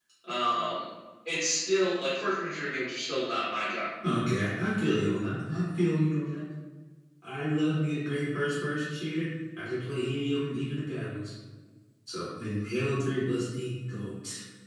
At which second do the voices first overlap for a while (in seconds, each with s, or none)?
none